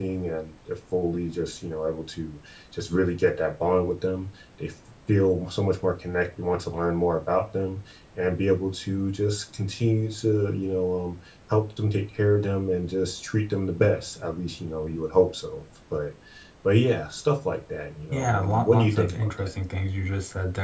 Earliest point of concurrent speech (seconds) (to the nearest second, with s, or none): 18 s